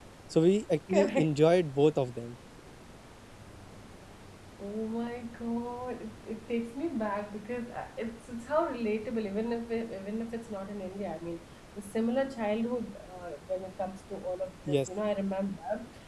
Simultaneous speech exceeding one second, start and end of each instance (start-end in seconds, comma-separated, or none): none